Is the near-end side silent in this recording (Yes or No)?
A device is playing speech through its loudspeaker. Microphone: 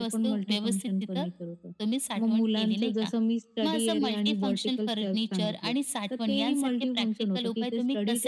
Yes